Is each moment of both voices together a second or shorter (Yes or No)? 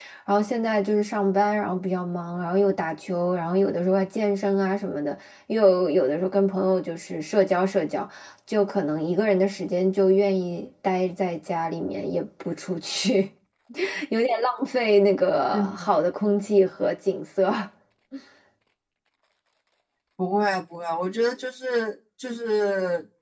Yes